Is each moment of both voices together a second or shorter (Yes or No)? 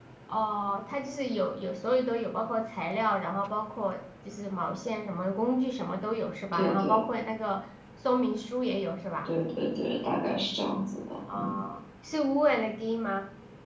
Yes